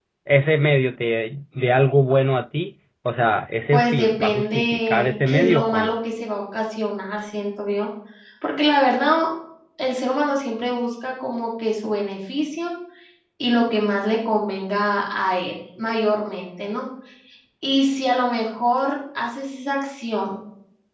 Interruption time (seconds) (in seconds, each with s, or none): 3.7 s